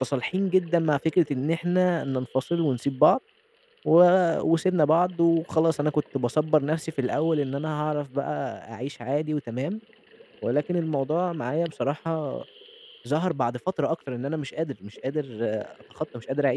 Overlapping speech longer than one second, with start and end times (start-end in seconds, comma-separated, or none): none